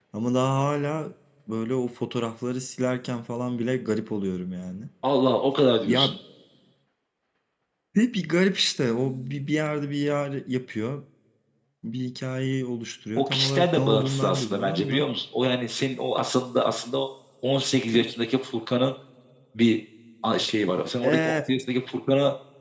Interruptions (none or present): present